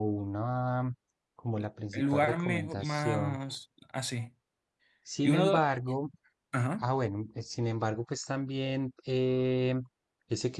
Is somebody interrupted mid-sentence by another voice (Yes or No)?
Yes